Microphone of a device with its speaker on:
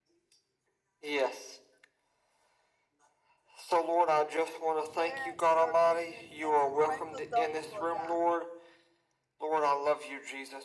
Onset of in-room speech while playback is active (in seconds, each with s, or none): 4.9 s